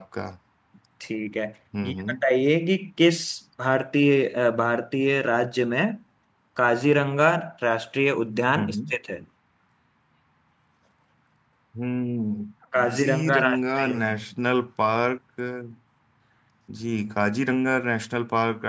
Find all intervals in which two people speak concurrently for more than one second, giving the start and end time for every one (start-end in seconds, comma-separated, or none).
12.8-14.0